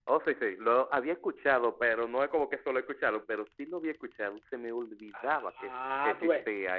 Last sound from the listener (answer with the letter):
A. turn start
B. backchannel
A